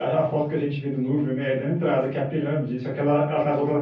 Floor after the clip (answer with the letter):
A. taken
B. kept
B